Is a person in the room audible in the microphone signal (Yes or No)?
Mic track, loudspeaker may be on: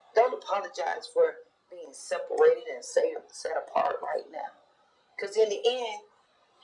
No